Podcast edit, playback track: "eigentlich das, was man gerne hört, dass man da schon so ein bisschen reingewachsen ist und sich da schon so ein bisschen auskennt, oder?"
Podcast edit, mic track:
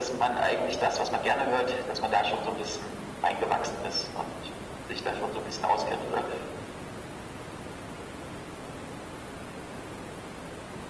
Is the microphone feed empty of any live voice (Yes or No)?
Yes